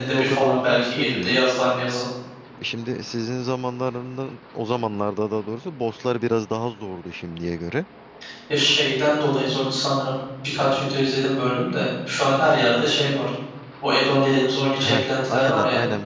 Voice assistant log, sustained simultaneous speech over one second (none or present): present